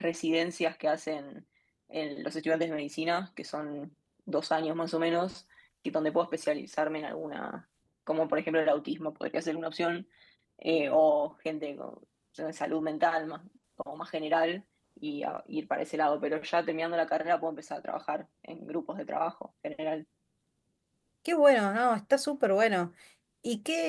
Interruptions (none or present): none